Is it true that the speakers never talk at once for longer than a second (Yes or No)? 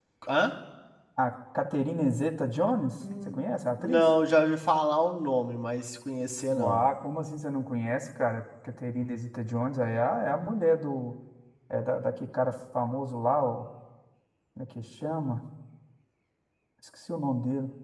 Yes